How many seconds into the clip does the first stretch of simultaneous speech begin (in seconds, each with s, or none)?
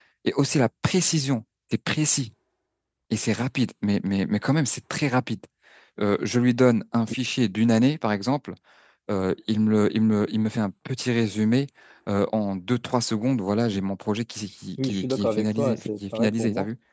14.8 s